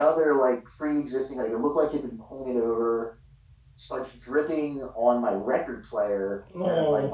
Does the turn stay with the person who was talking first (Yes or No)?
Yes